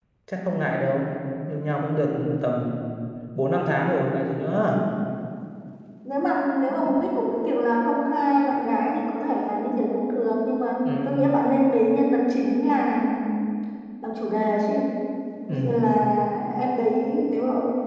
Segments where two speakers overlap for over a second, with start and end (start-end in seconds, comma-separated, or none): none